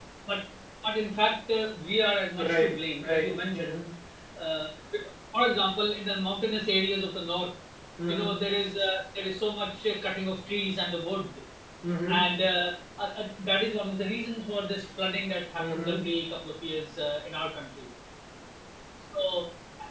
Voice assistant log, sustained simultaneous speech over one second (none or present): present